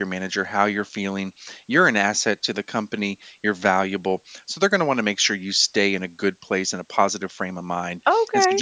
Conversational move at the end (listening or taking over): listening